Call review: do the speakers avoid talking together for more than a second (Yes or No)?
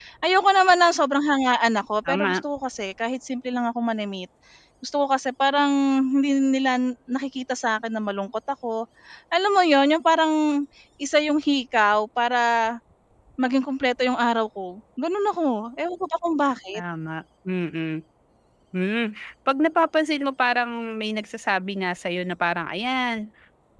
Yes